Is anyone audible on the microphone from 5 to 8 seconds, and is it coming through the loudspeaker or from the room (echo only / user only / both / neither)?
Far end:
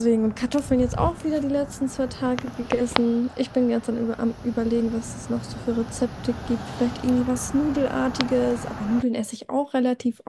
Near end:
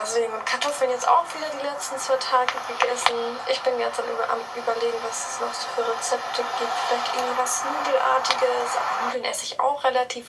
echo only